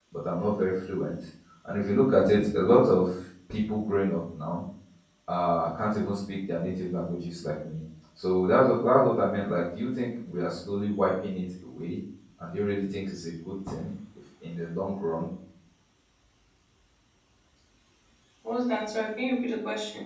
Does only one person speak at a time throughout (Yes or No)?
Yes